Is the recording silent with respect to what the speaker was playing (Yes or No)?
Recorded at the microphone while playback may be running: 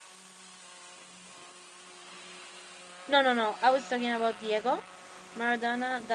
Yes